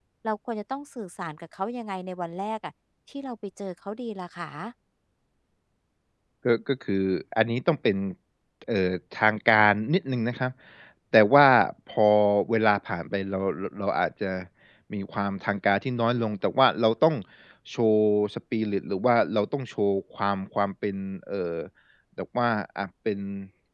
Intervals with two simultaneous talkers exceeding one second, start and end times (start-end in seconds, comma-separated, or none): none